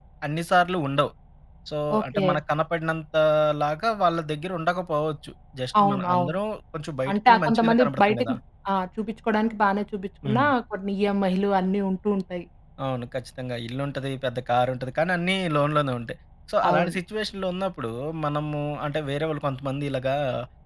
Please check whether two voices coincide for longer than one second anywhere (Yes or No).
Yes